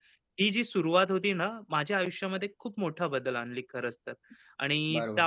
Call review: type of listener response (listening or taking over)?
taking over